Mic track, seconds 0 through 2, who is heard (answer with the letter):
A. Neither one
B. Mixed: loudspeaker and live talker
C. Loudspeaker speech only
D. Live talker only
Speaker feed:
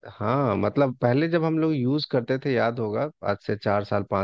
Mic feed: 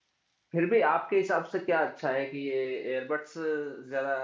D